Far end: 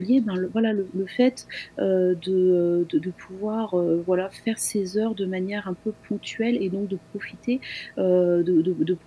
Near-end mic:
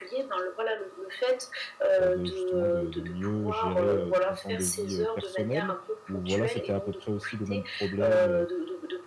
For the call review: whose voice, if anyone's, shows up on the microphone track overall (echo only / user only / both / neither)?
both